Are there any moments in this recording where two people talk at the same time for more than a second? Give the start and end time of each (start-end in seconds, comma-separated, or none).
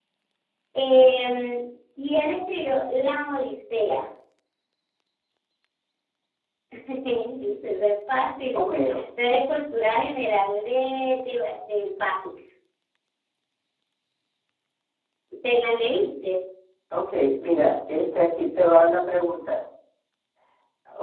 none